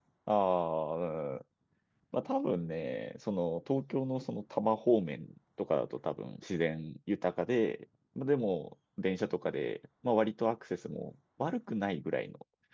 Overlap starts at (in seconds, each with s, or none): none